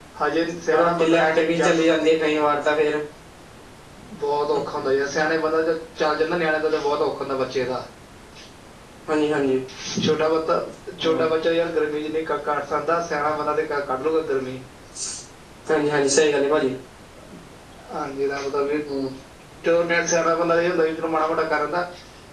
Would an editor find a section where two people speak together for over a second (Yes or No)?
Yes